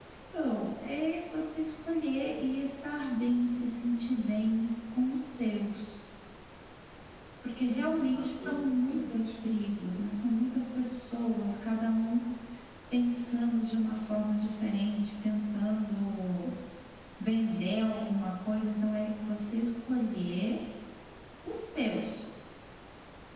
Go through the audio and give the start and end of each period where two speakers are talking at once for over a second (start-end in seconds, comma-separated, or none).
7.8-9.3